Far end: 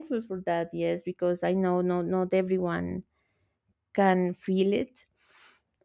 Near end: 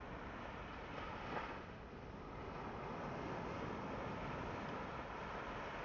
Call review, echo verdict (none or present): none